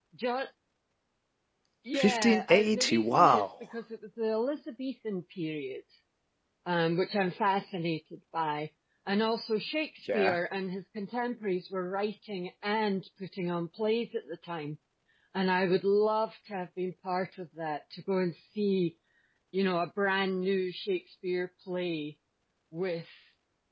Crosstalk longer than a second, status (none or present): present